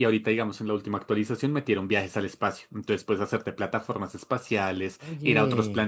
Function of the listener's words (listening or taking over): listening